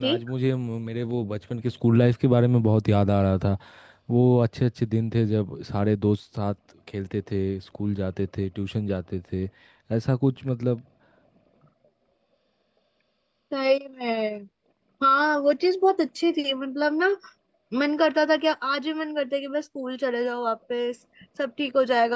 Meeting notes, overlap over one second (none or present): none